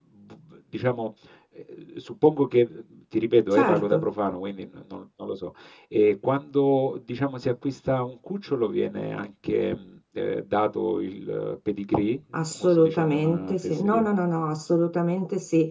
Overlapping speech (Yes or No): Yes